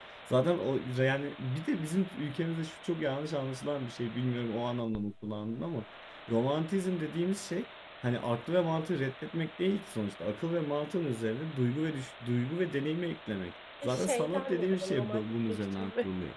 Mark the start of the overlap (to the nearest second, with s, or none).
14 s